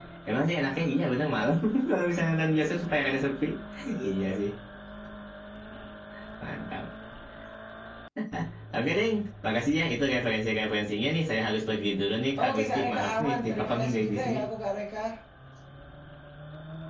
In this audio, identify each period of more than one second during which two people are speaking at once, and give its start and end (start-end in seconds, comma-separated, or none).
12.4-14.4